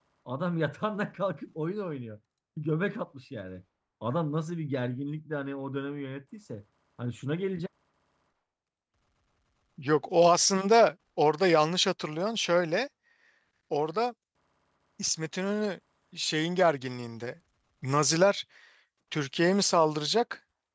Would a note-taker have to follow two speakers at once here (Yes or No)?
No